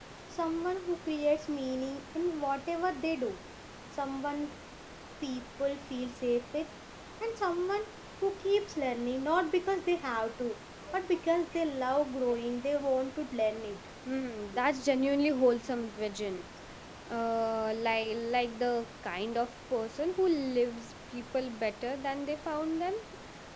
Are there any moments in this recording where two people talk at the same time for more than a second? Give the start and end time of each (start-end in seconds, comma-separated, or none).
none